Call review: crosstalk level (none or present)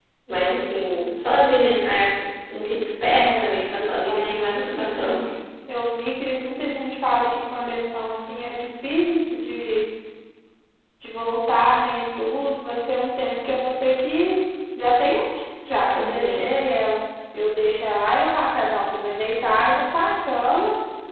present